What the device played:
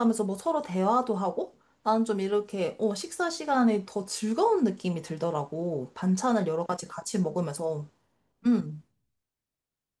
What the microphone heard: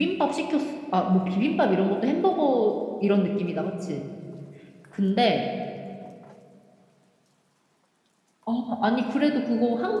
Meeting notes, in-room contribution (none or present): present